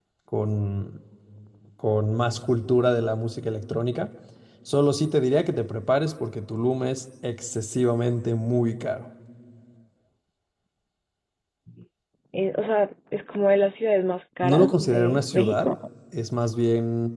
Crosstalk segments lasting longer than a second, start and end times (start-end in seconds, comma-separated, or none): 14.4-15.7